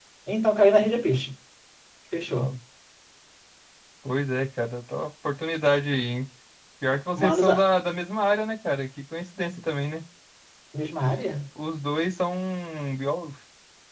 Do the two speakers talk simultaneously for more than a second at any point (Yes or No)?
No